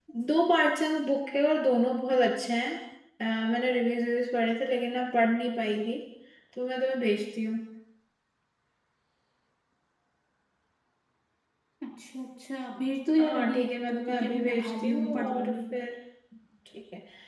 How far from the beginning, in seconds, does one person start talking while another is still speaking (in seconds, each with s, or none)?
13.2 s